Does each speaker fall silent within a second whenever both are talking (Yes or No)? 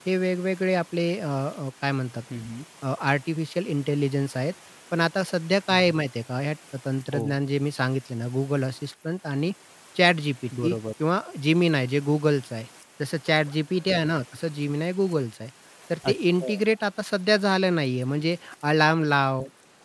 Yes